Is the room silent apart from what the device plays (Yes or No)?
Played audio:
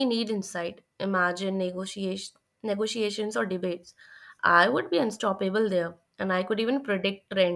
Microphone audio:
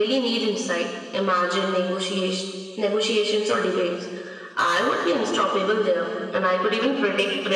Yes